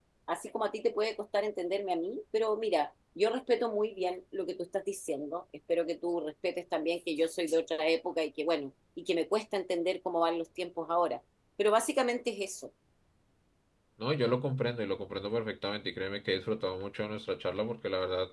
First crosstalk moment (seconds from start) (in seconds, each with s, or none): none